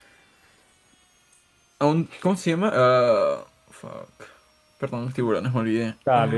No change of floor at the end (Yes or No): No